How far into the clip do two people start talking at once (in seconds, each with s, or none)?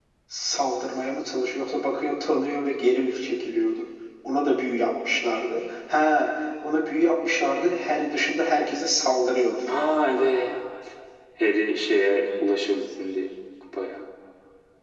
none